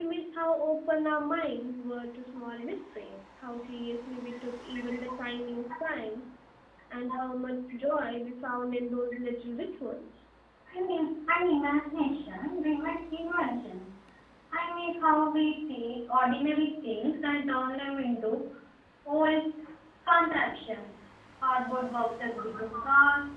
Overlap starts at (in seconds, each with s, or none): none